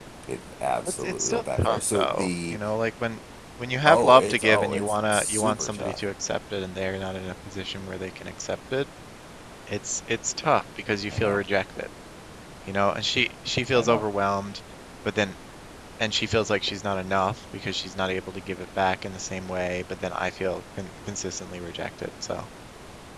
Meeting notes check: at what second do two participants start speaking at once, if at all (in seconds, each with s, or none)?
1.0 s